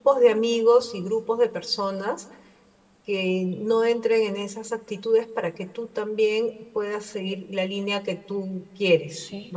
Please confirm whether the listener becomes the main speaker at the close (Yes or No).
Yes